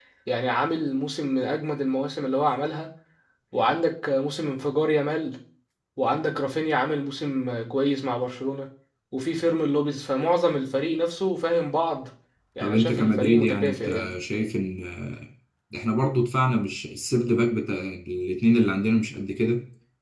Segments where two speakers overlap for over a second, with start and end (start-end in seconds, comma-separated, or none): 12.6-14.1